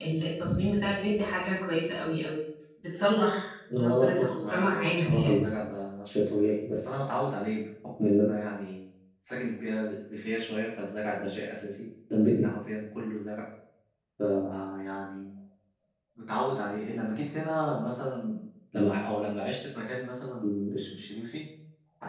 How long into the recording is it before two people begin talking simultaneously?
4 s

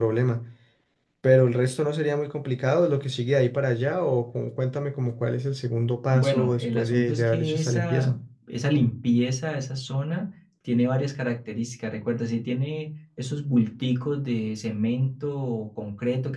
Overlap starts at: 6 s

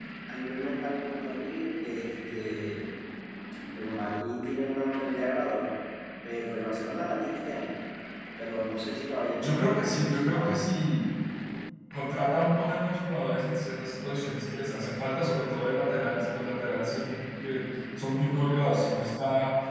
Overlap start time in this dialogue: 9 s

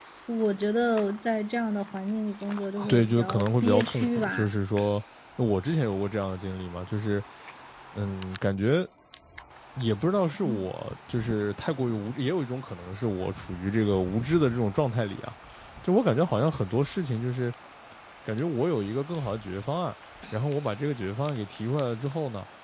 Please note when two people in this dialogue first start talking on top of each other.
3 s

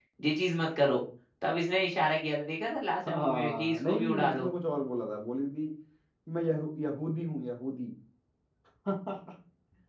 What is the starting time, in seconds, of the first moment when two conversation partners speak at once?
3 s

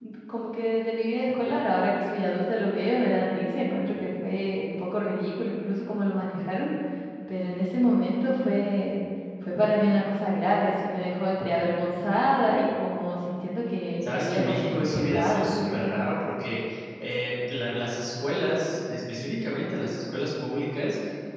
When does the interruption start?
14 s

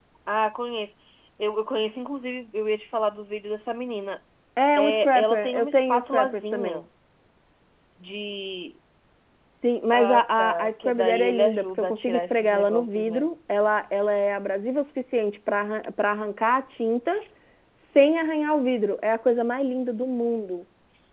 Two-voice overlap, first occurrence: 5 s

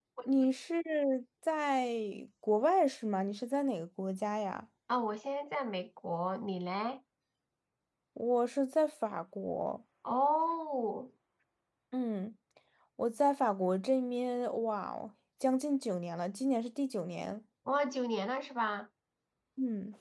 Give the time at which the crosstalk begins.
none

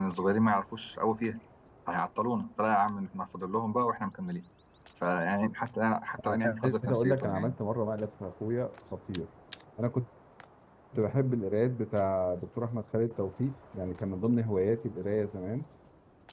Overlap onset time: 6 s

